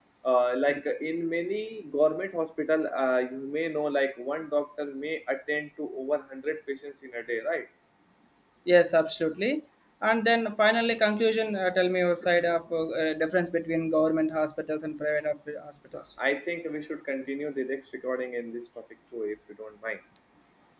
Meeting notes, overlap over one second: none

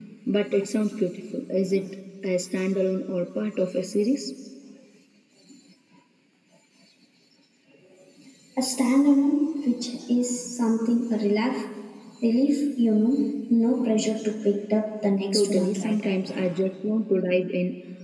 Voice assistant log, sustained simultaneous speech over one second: present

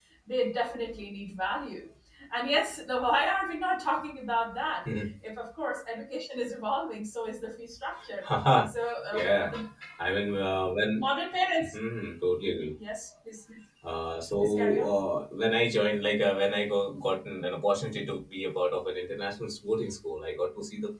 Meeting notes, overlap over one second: none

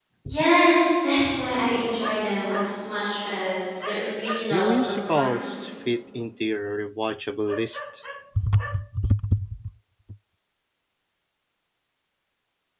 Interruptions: present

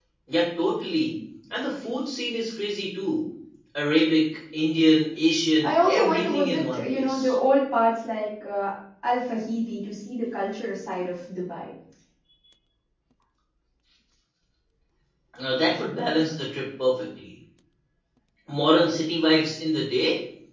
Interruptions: present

